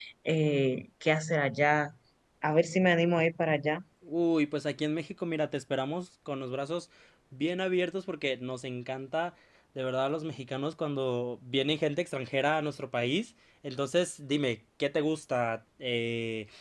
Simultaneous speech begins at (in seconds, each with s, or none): none